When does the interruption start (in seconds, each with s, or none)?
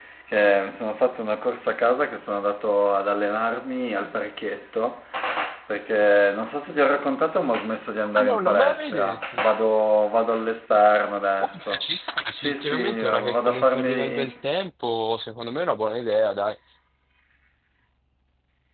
8.1 s